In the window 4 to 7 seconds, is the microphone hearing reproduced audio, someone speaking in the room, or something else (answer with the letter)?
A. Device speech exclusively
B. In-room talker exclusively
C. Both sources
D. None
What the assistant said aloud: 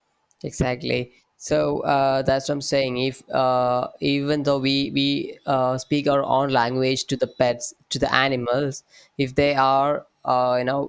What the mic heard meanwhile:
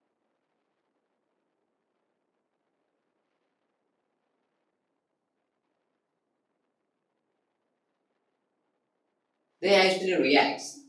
D